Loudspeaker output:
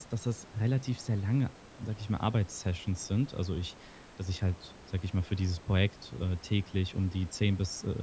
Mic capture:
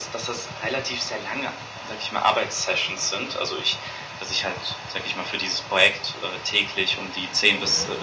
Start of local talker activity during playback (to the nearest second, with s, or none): none